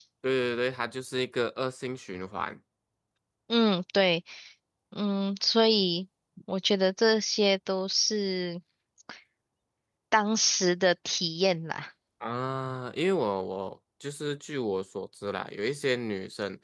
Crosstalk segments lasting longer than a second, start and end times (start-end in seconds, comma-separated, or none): none